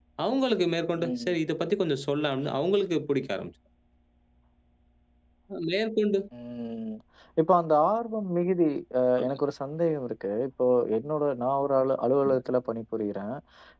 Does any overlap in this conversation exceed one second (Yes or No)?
No